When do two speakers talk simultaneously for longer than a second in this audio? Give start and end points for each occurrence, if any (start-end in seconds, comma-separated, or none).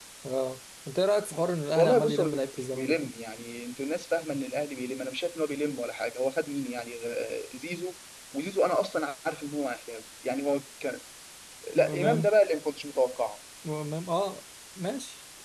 1.8-3.1